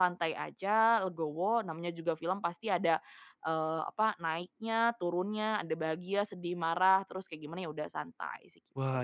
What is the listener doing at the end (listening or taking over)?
taking over